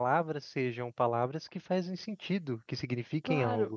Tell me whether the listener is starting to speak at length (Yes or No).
Yes